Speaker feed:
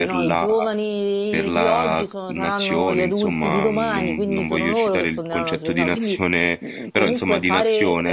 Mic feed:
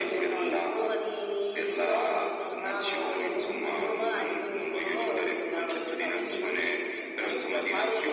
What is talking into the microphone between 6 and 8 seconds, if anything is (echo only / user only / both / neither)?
echo only